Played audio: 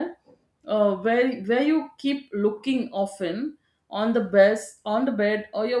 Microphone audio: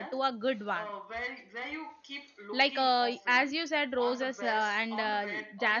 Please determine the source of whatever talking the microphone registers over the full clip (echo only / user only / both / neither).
both